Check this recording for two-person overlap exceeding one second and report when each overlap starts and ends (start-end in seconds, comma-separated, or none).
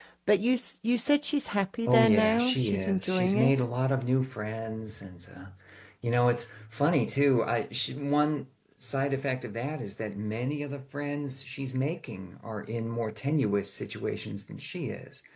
1.9-3.5